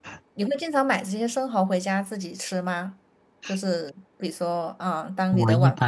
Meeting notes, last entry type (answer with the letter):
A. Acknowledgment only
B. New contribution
B